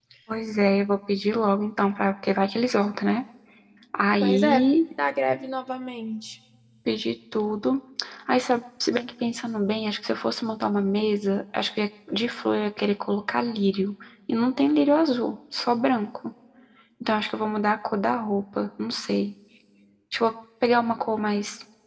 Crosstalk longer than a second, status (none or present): none